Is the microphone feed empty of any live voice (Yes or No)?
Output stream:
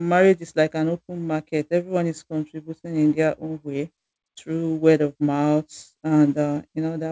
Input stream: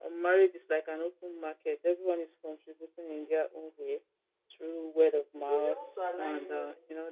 No